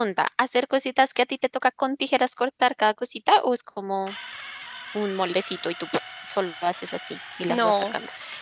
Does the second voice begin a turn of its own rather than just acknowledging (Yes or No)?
Yes